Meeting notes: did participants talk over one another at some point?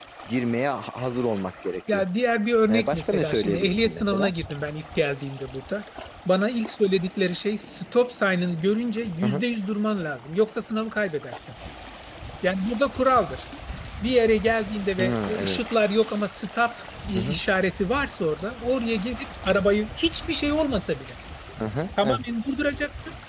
Yes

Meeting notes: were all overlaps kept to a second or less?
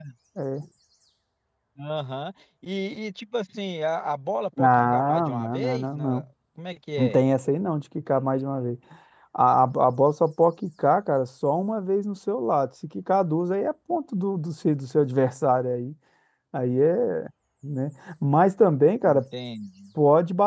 No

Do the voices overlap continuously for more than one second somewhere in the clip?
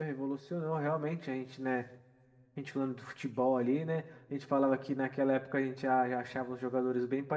No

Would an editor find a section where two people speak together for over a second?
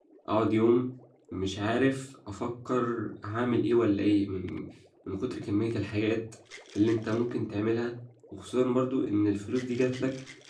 No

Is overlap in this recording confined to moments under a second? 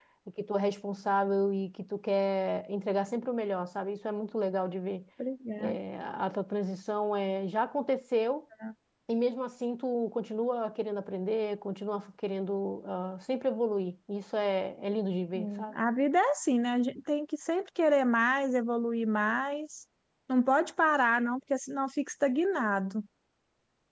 Yes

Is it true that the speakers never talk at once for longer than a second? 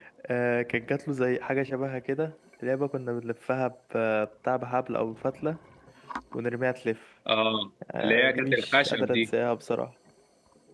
No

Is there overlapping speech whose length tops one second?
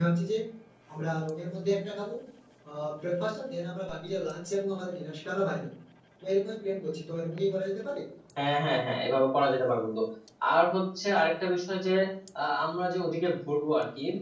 No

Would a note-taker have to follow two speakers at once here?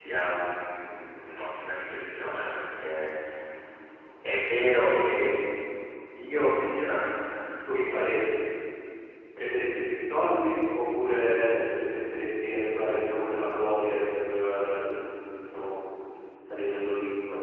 No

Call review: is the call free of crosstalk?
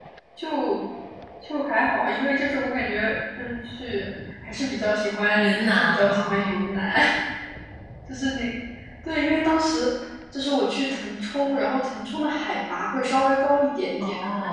No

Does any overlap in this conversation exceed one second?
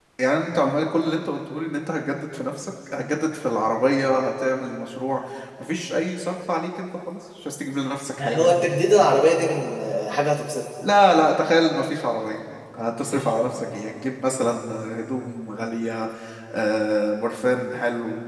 No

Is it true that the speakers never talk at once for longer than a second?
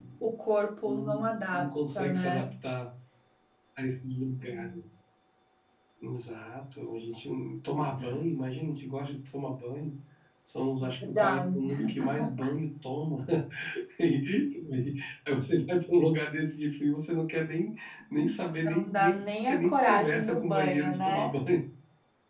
No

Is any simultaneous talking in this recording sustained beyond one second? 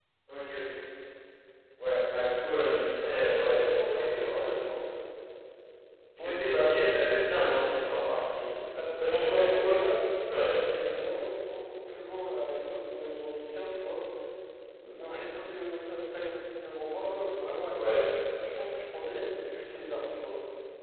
Yes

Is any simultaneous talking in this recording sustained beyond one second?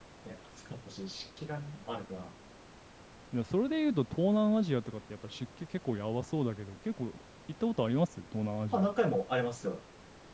No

